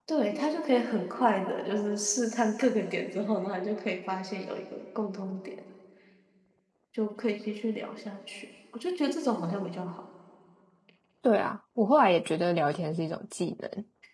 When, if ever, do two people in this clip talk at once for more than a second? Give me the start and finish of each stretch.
none

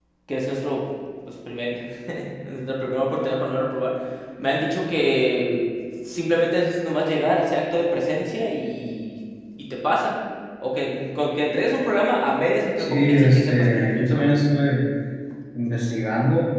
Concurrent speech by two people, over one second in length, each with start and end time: 12.8-14.3

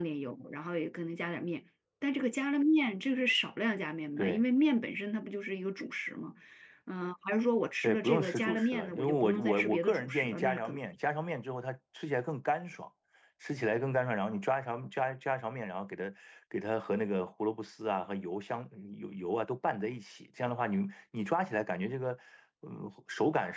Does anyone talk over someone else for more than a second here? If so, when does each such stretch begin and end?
7.8-10.8

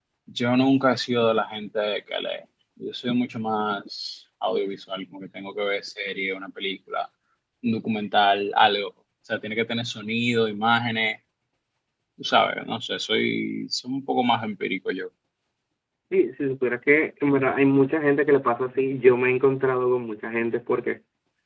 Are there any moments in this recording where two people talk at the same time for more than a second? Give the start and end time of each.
none

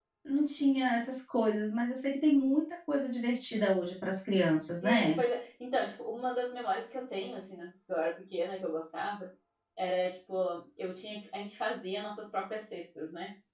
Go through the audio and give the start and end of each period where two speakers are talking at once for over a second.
none

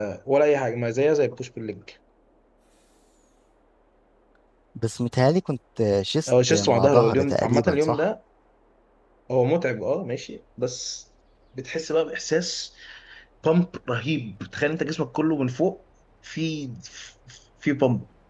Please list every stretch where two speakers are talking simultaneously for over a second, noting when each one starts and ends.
6.3-8.0

